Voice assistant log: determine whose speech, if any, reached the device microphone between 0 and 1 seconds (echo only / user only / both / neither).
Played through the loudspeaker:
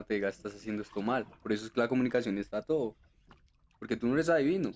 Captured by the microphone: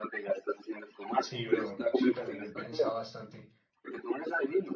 echo only